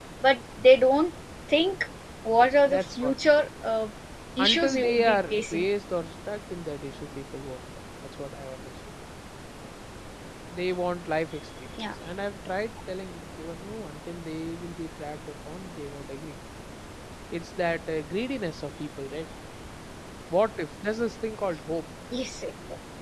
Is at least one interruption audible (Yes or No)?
Yes